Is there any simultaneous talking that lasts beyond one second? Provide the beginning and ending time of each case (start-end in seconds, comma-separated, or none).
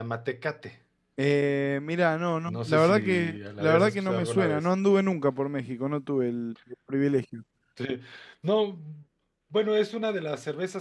2.5-4.6